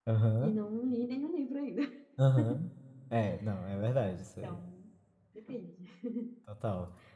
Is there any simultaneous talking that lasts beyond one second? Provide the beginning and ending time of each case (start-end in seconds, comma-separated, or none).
none